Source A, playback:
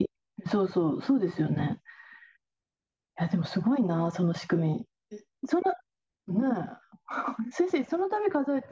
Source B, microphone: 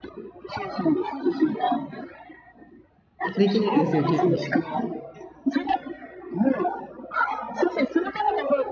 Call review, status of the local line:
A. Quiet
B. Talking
B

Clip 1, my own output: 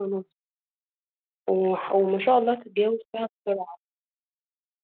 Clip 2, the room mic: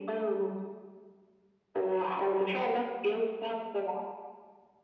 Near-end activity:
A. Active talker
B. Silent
B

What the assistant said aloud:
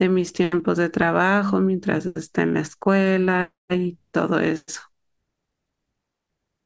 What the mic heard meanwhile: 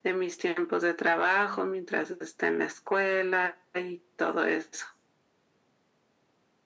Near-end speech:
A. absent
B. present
A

